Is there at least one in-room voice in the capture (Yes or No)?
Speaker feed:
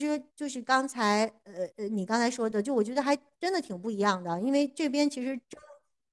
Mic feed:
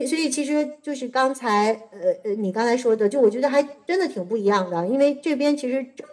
No